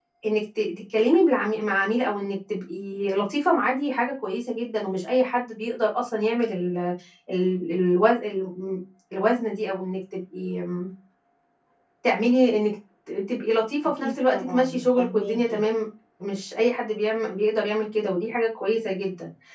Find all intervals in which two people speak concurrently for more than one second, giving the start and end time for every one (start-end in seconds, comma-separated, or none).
14.0-15.6